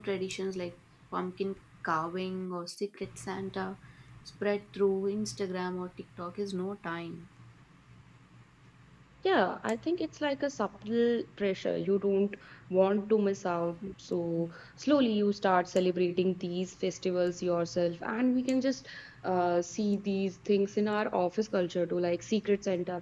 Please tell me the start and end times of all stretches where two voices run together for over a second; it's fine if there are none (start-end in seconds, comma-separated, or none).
none